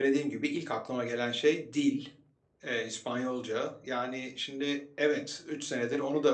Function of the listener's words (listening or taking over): listening